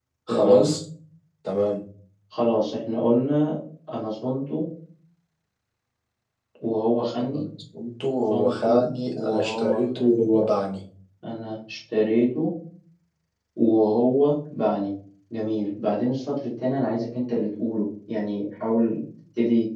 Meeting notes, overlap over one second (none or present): present